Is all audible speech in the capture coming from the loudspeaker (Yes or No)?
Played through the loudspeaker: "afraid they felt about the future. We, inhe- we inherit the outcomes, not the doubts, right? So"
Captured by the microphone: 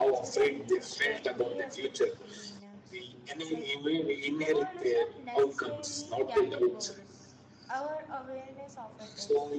No